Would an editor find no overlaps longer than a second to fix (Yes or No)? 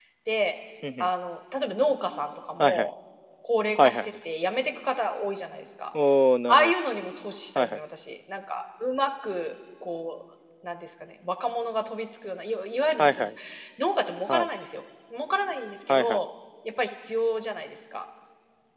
Yes